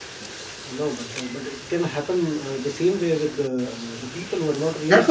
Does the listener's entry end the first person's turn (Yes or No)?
Yes